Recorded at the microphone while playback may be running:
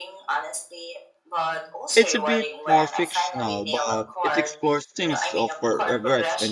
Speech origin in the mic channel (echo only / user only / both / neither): both